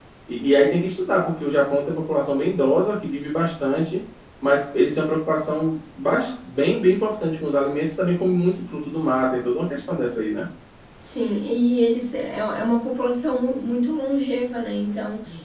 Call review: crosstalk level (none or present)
none